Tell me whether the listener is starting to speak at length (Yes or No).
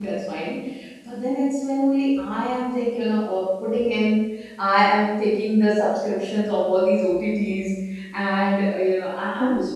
Yes